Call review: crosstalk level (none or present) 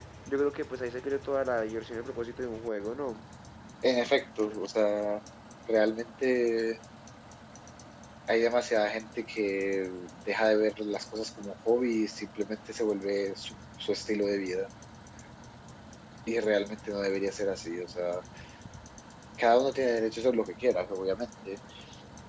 none